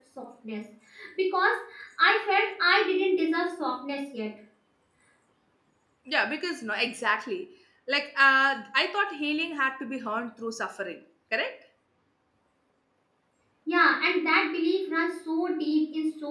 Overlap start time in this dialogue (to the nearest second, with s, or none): none